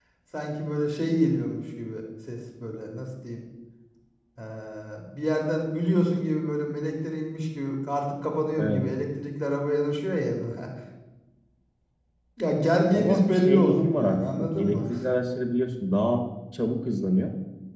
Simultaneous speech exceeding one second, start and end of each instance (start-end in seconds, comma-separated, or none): 12.9-14.8